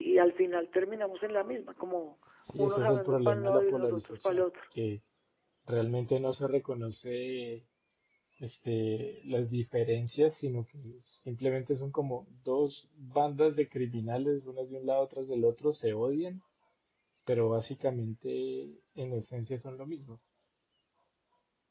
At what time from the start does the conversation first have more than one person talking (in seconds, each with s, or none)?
2.5 s